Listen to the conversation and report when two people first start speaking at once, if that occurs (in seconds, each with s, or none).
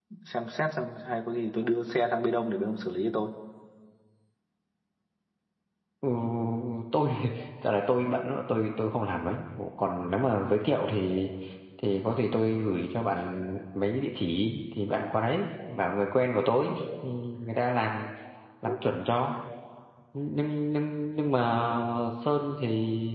none